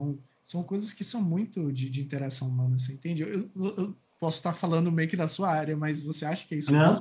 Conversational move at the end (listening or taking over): taking over